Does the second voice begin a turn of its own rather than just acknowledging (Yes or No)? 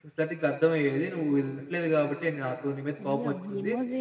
Yes